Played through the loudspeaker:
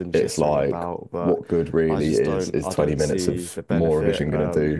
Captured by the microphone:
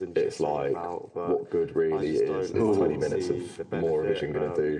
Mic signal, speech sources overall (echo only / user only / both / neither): both